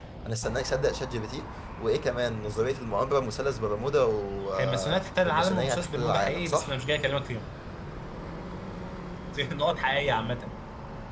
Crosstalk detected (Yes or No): Yes